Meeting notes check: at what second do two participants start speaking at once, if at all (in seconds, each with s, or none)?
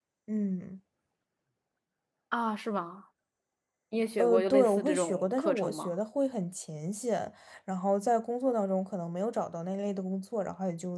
4.2 s